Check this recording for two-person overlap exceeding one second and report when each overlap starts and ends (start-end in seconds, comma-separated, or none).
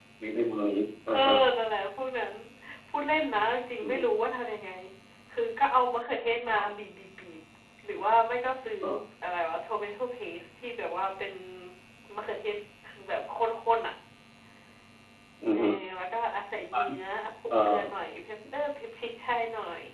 none